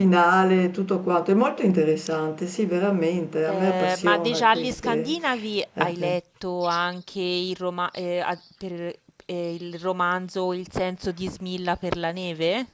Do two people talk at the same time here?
Yes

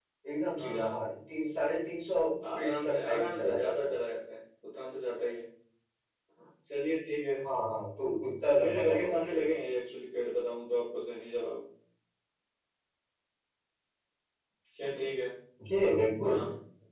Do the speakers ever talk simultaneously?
Yes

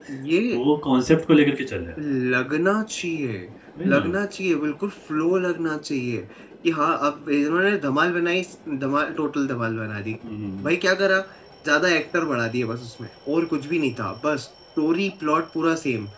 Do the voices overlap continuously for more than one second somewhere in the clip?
No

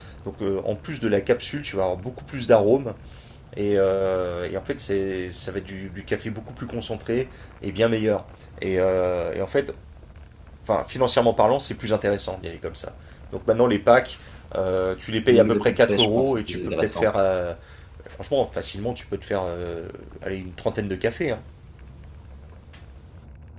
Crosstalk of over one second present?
Yes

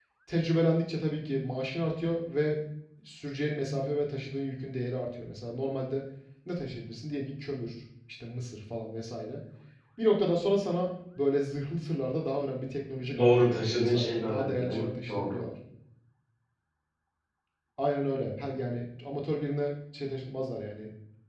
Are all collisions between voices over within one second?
No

